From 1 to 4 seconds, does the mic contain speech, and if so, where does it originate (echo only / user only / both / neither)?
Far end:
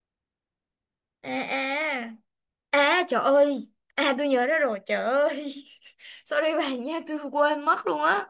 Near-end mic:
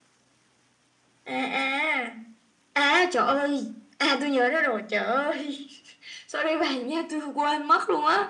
echo only